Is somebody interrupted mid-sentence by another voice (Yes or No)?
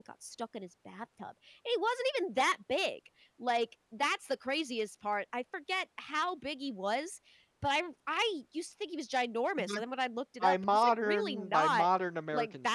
Yes